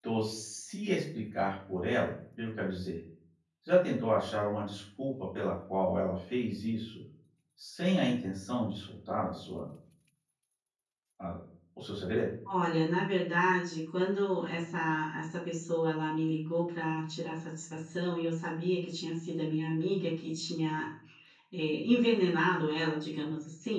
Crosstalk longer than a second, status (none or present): none